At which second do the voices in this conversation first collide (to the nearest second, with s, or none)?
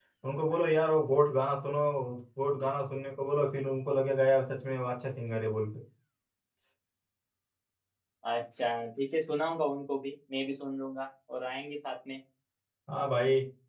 none